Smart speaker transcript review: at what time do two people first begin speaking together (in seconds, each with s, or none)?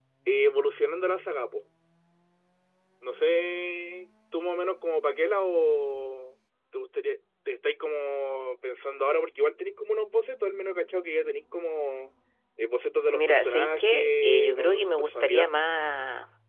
13.1 s